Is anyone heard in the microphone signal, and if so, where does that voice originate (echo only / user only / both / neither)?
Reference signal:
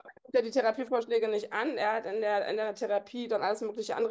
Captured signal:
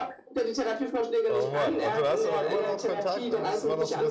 both